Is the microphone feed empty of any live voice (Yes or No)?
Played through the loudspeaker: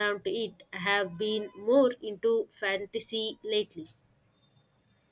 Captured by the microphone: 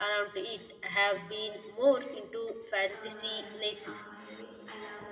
No